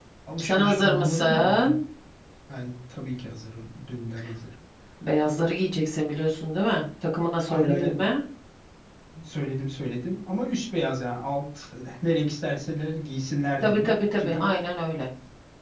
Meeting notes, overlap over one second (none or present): present